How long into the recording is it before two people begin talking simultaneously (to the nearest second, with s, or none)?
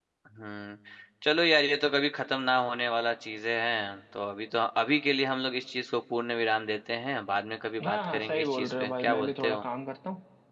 8 s